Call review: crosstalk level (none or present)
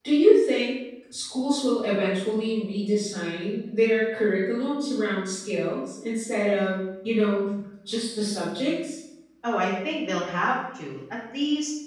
none